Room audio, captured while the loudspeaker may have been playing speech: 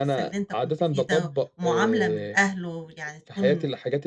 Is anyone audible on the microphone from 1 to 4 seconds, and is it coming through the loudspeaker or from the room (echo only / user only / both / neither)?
both